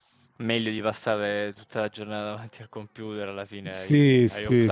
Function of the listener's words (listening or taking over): taking over